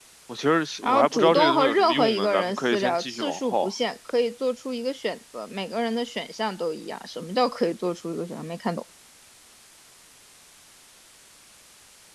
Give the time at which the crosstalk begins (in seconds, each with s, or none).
0.8 s